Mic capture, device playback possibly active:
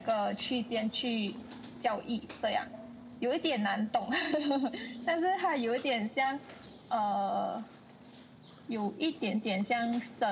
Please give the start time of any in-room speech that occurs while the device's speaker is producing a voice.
none

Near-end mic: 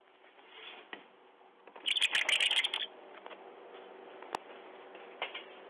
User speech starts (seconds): none

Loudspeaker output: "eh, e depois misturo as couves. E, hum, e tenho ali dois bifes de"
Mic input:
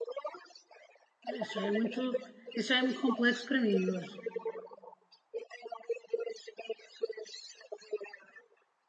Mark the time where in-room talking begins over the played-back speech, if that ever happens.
1 s

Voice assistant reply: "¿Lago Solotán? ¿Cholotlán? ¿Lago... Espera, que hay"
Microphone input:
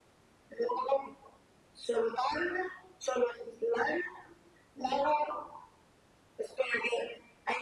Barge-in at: none

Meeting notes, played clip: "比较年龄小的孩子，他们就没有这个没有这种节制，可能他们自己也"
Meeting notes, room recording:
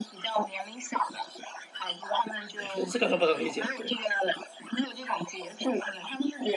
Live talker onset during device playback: 3 s

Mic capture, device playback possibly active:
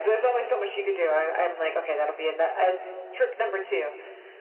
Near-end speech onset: none

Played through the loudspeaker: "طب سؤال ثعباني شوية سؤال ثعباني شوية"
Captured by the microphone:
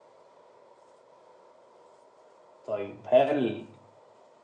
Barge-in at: 3 s

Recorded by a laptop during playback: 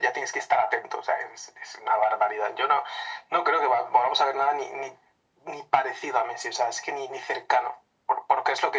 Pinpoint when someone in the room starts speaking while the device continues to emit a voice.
none

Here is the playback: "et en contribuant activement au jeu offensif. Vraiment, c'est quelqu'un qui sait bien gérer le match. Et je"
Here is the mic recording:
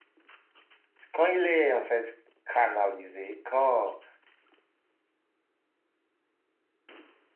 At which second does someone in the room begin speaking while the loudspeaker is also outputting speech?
1 s

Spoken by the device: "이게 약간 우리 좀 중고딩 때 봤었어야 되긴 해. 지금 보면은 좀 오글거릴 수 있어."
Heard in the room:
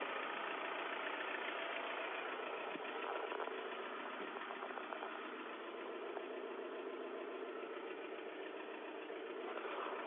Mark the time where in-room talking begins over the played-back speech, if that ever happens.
none

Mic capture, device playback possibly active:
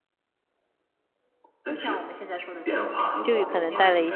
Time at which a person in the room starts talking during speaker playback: 3 s

